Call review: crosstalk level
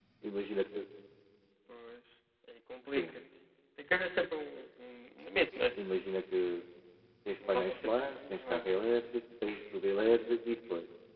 present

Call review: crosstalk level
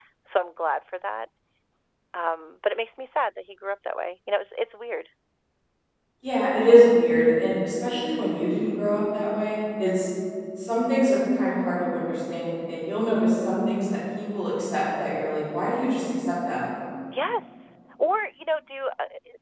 none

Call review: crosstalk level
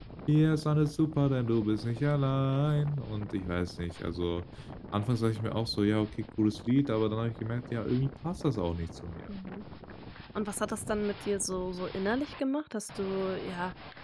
none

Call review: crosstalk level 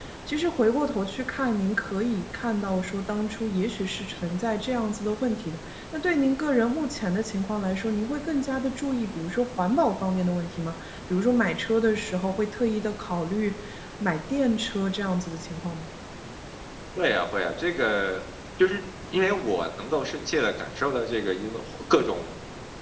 none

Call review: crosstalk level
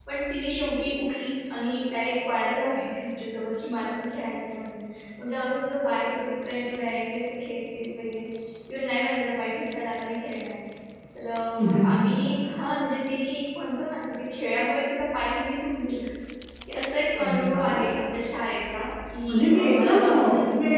present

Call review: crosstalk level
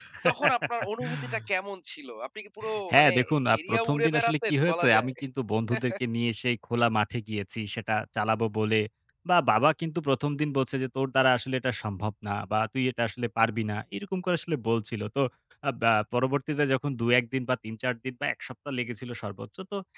present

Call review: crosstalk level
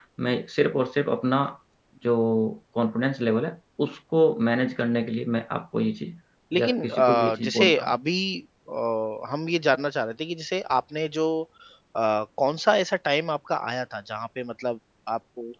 present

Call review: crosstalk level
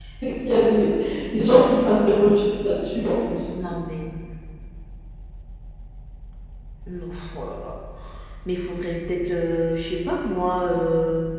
none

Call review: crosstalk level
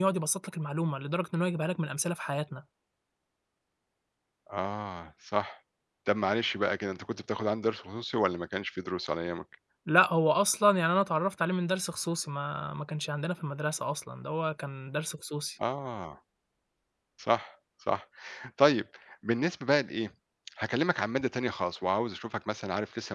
none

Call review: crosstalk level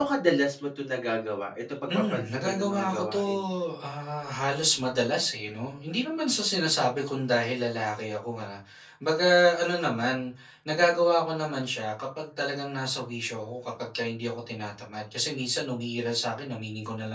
present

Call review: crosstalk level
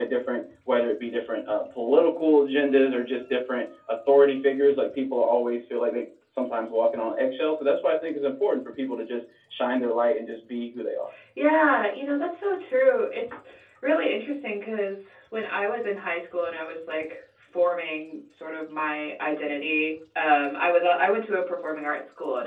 none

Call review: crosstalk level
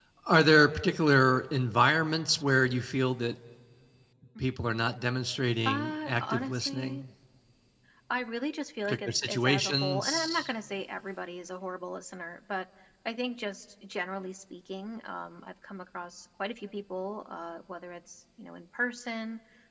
present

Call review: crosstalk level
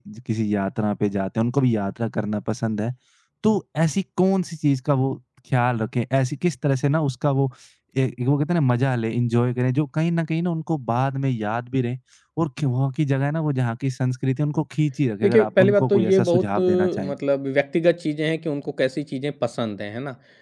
present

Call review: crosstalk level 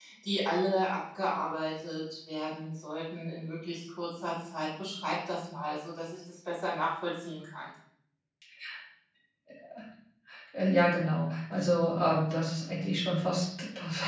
none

